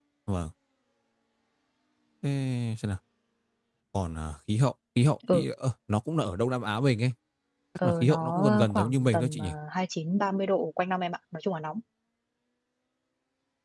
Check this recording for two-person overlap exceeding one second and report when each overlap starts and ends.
7.8-9.5

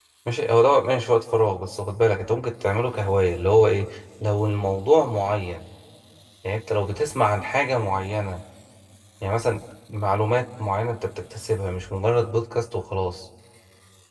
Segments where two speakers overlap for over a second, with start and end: none

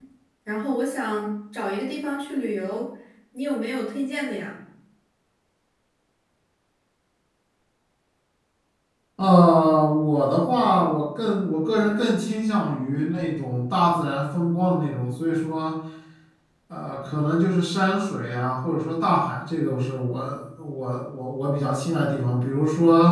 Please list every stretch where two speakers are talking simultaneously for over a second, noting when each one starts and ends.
none

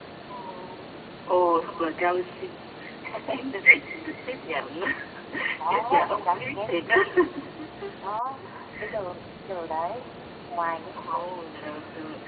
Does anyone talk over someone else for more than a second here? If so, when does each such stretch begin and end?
5.7-7.1

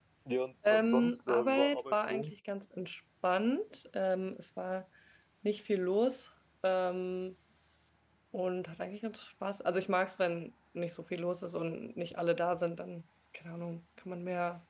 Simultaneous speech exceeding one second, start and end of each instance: 0.7-2.3

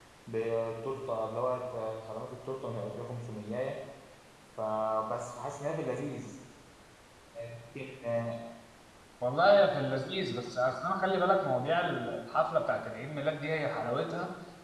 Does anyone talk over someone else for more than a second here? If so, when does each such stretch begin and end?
none

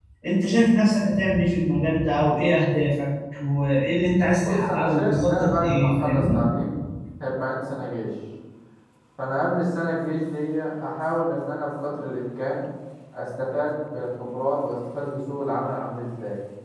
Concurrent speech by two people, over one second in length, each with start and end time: 4.4-6.4

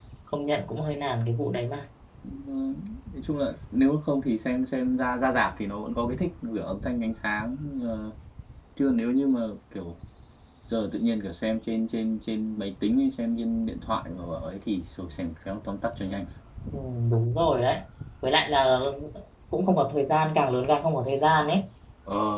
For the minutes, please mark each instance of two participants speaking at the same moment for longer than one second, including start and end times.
none

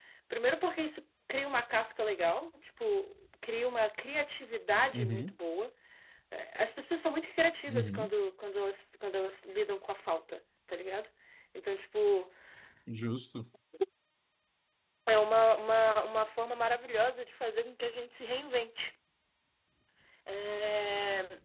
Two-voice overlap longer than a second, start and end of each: none

